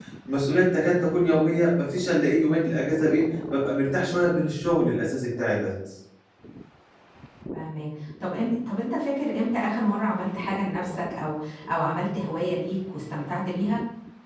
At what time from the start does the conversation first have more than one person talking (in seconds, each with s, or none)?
none